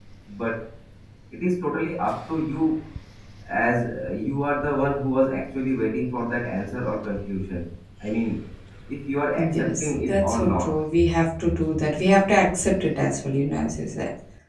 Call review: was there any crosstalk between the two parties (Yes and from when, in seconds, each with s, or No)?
Yes, from 9.3 s